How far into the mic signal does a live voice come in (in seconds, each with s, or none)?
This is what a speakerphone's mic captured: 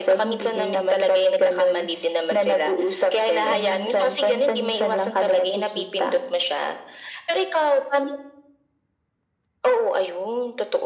none